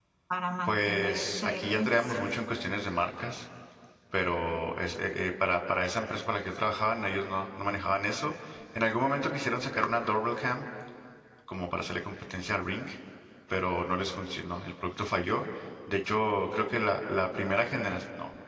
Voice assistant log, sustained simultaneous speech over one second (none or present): present